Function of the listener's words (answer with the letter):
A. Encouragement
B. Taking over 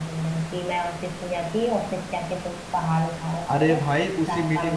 B